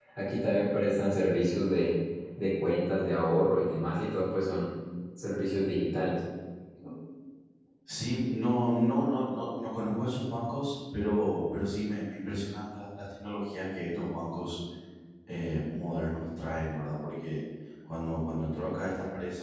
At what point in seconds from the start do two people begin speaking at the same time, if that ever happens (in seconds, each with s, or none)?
none